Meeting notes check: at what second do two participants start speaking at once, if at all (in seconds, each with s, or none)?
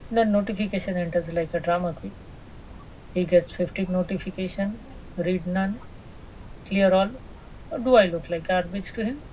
none